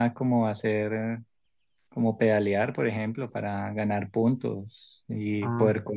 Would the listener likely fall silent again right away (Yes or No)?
Yes